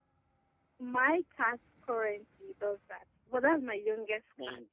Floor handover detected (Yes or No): Yes